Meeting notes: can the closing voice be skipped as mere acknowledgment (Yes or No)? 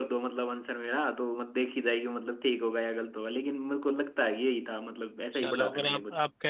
No